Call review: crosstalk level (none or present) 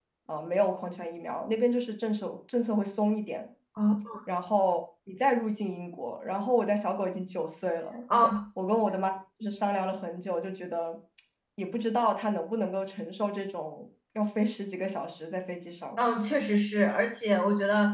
none